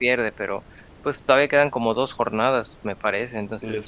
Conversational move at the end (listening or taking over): taking over